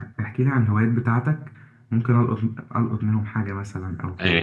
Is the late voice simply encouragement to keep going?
No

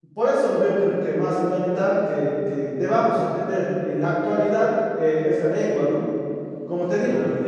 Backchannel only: Yes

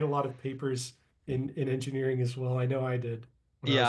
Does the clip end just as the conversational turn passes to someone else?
Yes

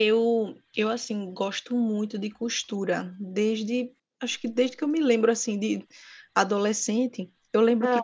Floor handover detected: No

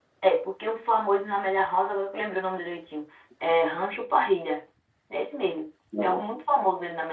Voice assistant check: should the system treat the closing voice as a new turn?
No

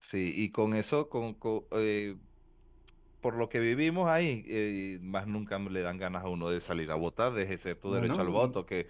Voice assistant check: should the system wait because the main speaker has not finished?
Yes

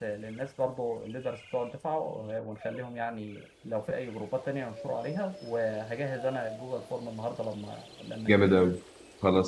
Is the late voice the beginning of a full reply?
Yes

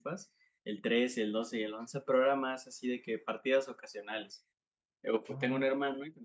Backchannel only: Yes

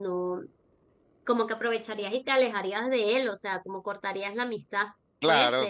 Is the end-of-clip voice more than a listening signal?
Yes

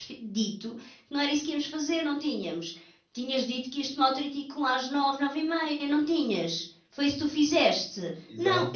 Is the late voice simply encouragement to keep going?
No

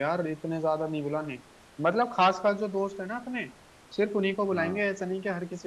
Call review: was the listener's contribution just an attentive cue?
Yes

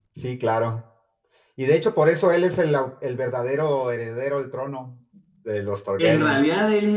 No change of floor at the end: No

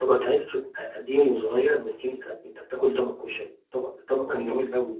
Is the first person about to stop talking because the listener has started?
No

